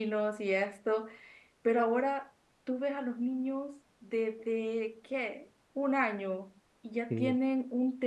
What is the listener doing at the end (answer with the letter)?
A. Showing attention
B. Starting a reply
A